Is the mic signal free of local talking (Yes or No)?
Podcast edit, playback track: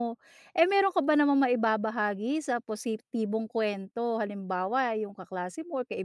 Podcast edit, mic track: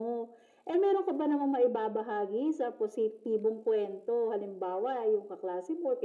Yes